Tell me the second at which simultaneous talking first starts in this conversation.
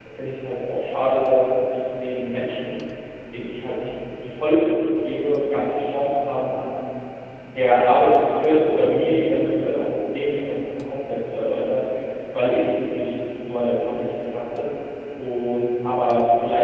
none

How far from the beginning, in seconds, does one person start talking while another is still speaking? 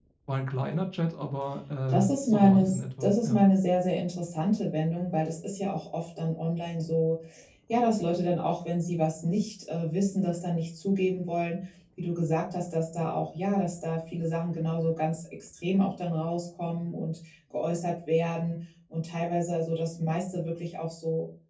1.9 s

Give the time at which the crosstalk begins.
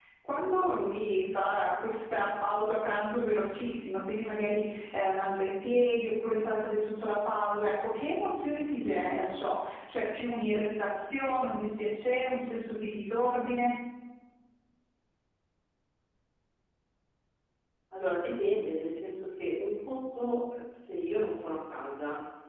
none

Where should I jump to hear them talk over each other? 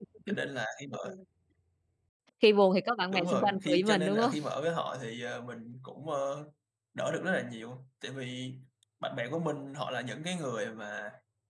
3.1 s

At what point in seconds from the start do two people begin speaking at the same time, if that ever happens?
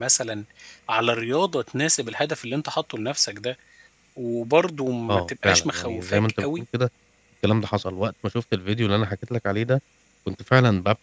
5.1 s

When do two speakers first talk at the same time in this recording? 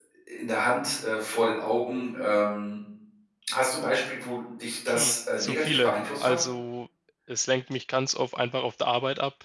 4.9 s

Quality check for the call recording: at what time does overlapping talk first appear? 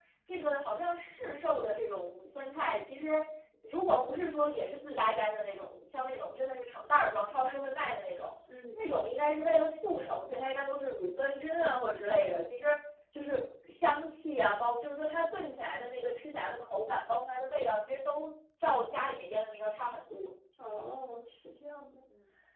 none

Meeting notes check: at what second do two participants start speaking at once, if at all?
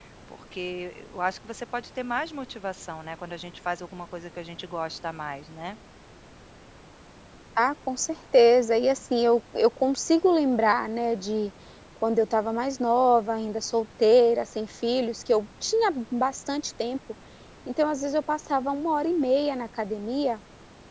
none

